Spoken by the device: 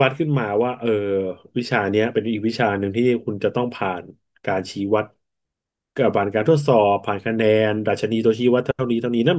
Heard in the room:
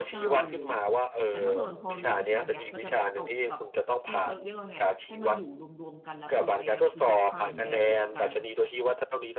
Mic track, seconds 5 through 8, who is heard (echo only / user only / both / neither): both